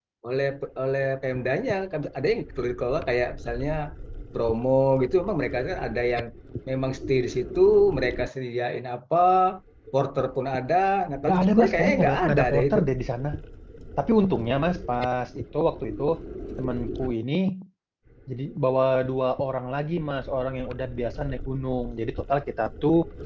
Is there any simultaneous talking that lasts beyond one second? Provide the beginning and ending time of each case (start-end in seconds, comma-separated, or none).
11.3-12.8